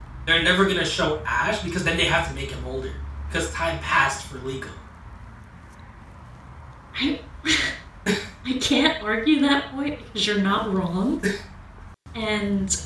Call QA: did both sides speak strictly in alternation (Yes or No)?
Yes